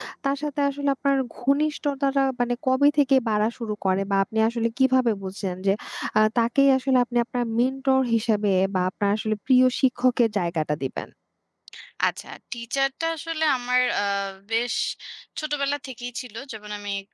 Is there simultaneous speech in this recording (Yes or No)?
No